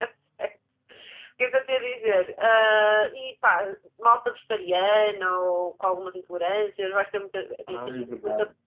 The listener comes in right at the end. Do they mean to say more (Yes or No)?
Yes